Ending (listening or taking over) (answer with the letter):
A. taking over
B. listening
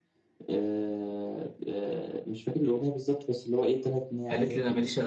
A